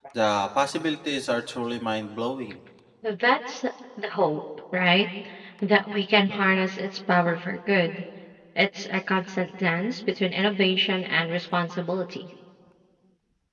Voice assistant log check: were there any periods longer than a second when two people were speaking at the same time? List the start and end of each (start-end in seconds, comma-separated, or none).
none